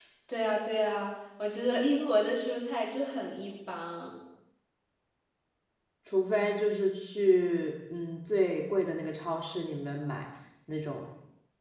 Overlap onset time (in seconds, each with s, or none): none